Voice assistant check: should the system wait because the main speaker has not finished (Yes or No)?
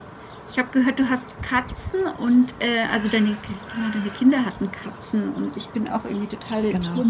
Yes